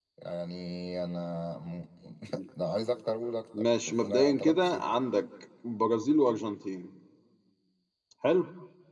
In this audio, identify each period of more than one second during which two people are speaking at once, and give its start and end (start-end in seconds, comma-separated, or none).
3.6-4.8